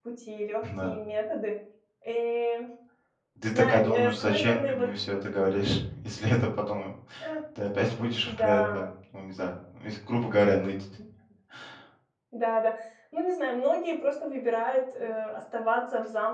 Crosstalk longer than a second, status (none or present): present